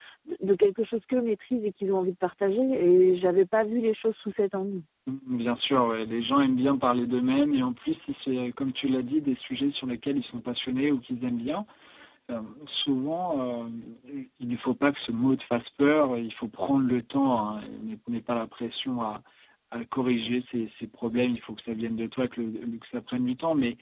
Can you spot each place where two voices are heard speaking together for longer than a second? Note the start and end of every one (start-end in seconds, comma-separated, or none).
none